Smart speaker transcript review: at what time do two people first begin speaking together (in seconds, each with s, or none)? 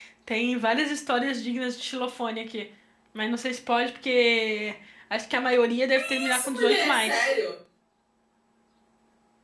6.0 s